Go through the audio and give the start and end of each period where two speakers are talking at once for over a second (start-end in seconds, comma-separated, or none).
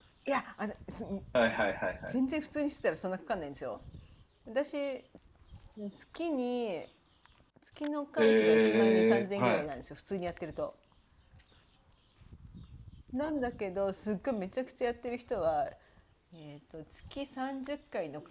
8.2-9.6